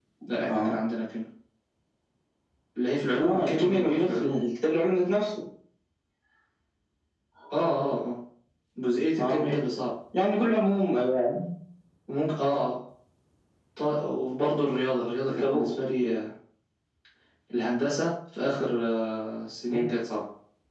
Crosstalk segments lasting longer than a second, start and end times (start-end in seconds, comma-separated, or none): 3.2-4.5